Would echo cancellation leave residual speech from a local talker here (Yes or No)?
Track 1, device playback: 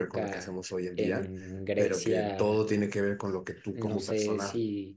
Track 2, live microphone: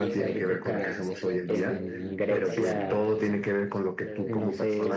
Yes